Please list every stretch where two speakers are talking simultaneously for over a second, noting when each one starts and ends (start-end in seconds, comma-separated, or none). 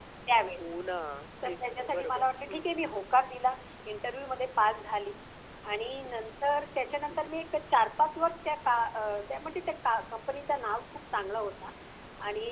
1.4-2.8